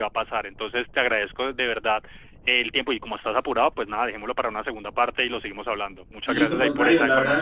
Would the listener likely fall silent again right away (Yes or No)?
No